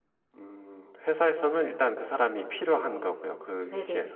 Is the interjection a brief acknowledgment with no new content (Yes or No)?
No